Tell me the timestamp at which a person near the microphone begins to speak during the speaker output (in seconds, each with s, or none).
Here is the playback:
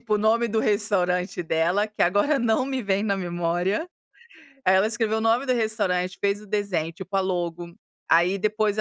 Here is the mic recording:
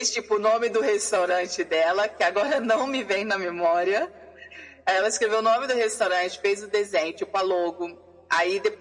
none